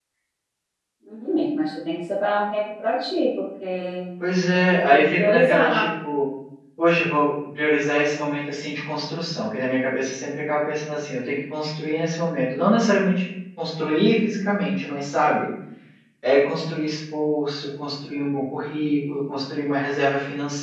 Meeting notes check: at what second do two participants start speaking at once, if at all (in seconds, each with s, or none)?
4.6 s